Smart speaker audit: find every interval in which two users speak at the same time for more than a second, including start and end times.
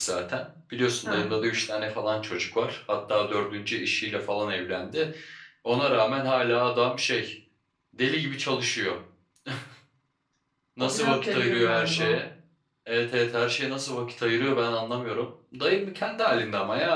10.8-12.2

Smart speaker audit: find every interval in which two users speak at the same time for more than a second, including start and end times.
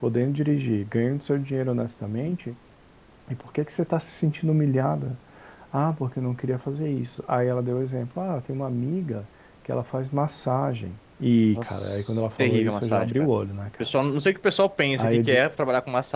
11.6-13.3

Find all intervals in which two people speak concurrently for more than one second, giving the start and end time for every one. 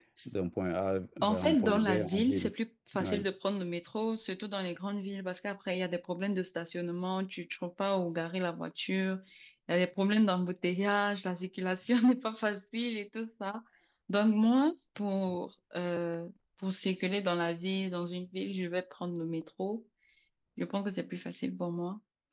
1.2-2.5

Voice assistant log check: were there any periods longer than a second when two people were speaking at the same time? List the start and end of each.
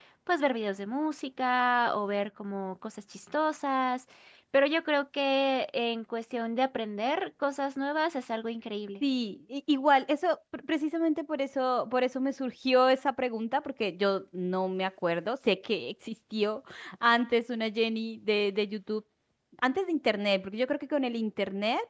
none

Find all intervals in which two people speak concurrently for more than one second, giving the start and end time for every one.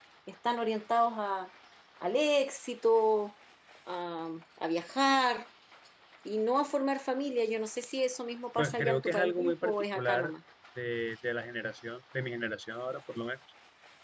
8.6-10.3

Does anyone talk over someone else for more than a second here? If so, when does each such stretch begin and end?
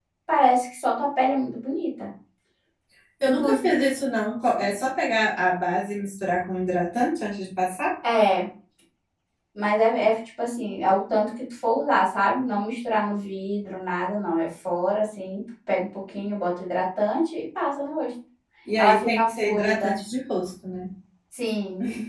18.8-20.0

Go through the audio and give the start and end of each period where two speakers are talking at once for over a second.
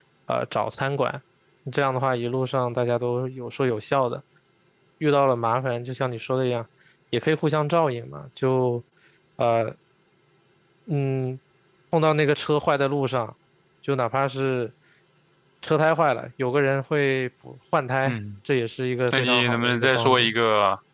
19.1-20.3

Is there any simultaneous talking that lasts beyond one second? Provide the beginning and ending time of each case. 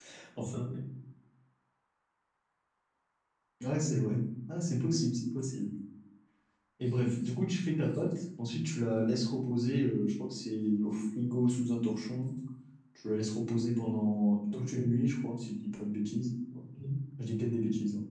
none

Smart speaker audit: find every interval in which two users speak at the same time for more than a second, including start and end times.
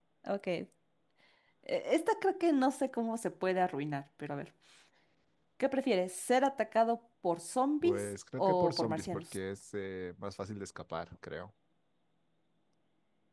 7.8-9.4

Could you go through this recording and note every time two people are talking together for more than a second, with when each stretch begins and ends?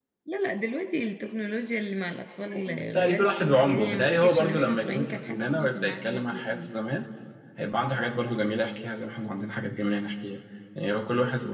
2.5-6.7

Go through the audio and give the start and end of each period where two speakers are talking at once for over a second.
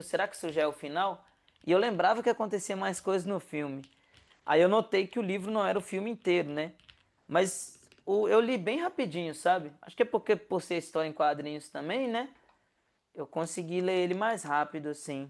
none

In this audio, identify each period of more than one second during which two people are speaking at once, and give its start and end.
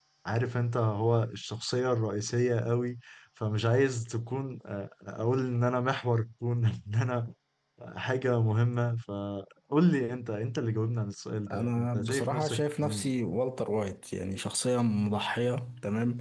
11.5-13.1

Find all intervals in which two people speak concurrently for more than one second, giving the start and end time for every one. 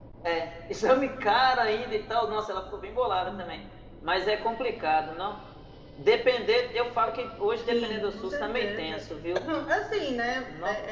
7.7-9.0

